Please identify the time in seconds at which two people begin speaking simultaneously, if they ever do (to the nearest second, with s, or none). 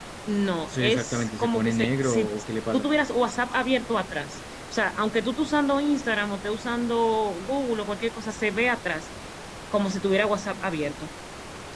1 s